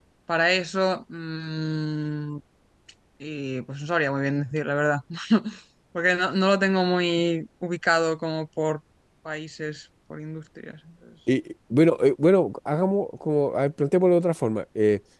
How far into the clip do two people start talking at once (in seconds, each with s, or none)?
none